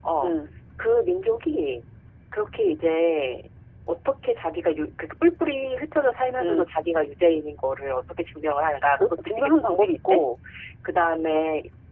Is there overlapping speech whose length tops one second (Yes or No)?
Yes